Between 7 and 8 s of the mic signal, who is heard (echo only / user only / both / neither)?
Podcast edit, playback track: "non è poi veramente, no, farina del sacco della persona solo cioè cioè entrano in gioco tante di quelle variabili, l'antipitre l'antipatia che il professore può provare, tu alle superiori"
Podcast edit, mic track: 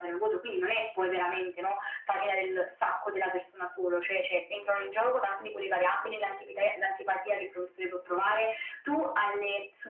echo only